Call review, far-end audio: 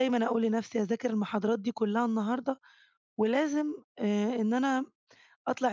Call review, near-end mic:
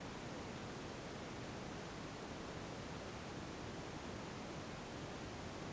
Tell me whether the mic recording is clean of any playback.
Yes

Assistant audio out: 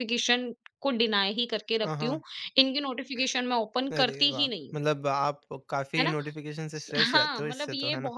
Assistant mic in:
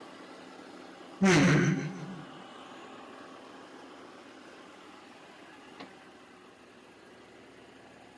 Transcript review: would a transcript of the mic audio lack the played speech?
Yes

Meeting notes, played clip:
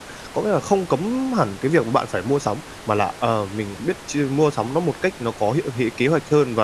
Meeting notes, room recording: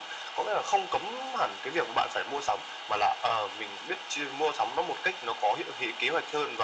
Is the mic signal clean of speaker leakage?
No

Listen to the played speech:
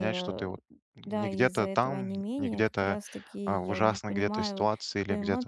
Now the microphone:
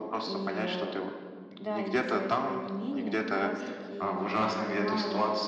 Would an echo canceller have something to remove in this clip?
Yes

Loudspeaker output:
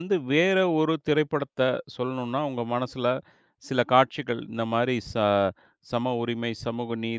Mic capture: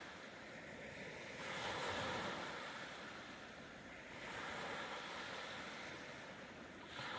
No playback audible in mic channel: Yes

